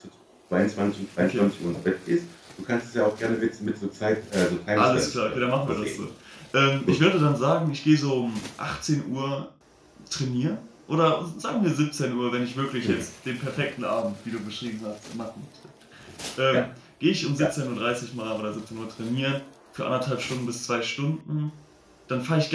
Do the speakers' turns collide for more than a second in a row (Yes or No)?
Yes